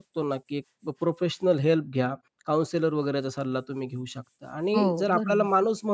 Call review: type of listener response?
listening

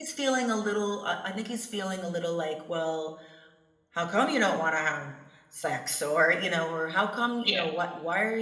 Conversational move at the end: listening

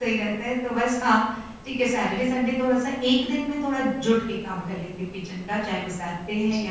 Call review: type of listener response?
taking over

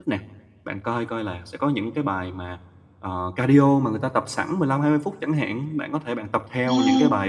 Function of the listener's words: listening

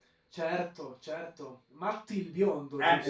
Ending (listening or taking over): taking over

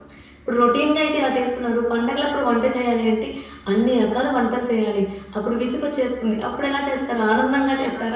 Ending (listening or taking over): taking over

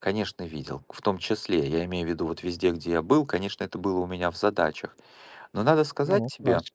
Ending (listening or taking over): listening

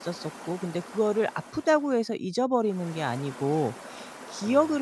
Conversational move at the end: listening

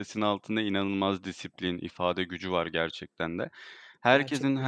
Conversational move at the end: listening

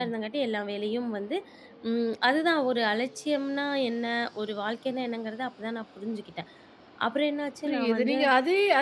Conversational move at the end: taking over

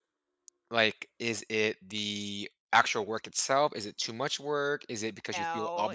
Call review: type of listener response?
listening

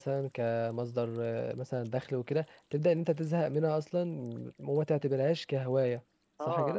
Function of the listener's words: taking over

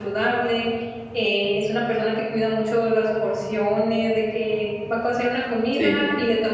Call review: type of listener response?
listening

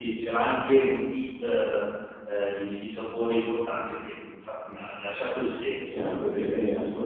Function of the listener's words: taking over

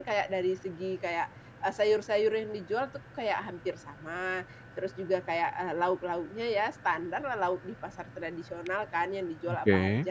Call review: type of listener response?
listening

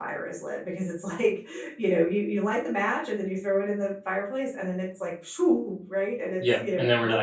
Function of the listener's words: taking over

